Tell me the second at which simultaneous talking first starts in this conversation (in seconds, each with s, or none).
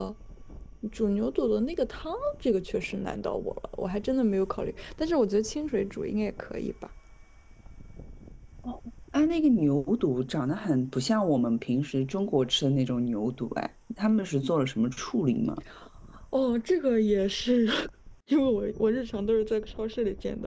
none